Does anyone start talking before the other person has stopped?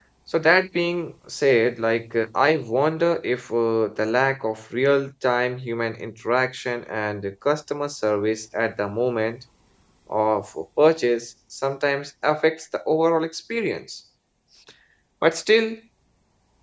No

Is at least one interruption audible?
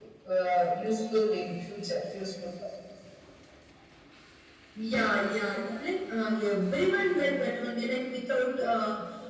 No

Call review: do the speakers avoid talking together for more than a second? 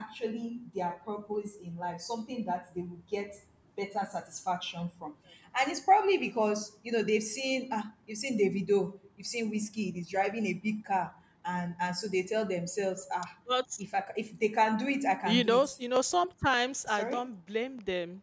Yes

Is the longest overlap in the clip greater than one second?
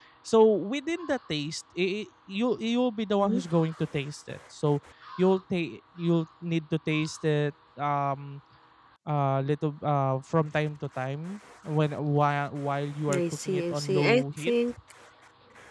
Yes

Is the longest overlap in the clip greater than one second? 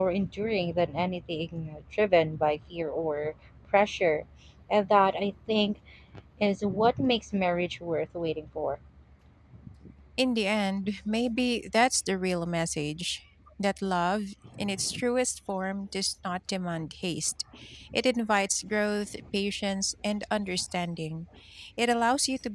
No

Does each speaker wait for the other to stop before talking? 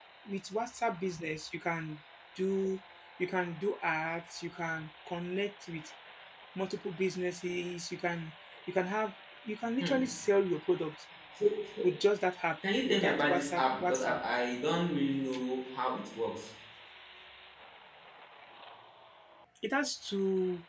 No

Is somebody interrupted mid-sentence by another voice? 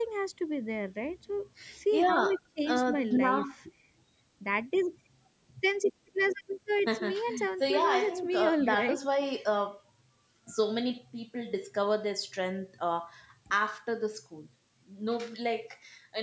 Yes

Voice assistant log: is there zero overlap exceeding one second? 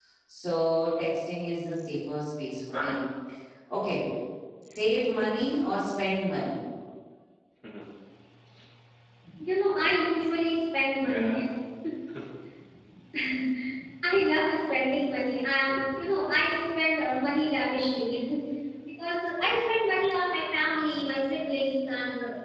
Yes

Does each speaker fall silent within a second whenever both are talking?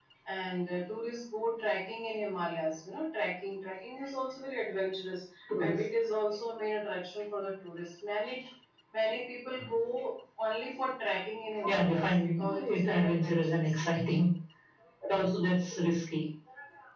No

